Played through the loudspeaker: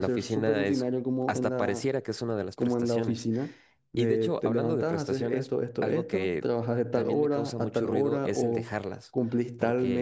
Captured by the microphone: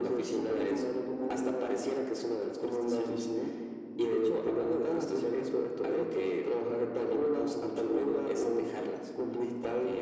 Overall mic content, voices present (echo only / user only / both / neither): echo only